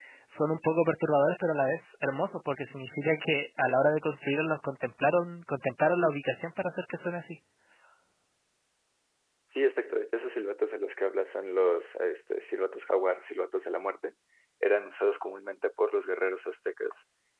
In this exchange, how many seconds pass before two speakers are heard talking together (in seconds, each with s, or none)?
none